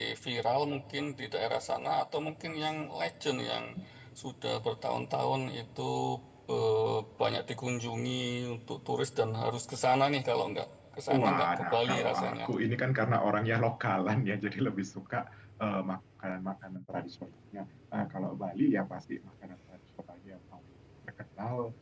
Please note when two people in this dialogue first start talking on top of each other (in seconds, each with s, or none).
11.1 s